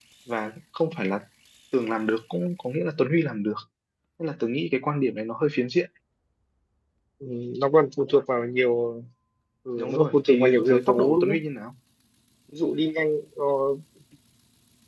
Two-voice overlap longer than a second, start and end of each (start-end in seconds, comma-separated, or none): 9.8-11.4